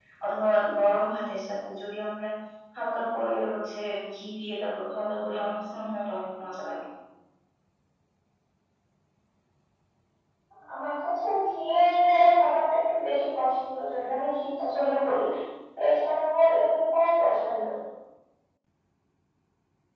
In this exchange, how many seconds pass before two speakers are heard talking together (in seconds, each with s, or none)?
none